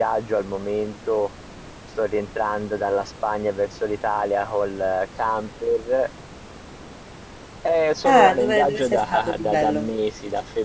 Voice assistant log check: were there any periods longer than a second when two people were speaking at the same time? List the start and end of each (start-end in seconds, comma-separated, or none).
8.1-9.9